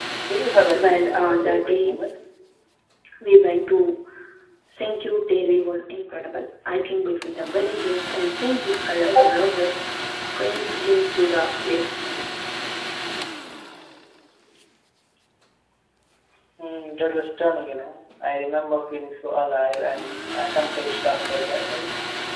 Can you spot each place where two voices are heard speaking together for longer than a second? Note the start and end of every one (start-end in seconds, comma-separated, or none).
0.7-2.0